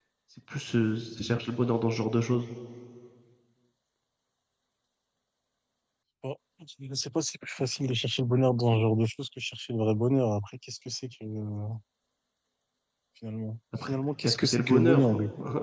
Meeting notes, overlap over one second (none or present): present